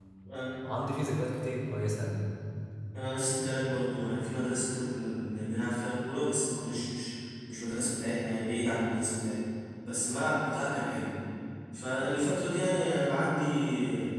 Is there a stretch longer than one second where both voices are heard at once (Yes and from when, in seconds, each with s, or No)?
No